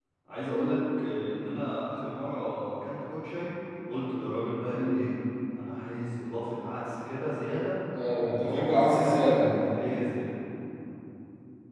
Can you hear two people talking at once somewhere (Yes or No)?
Yes